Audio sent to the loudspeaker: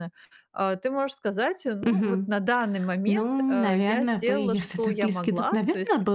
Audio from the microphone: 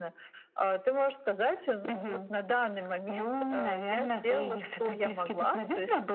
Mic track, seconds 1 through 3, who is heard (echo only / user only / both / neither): echo only